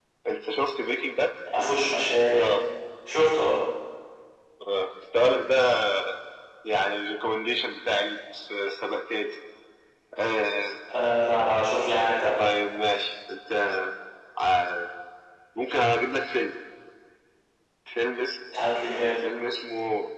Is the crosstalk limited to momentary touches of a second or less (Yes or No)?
Yes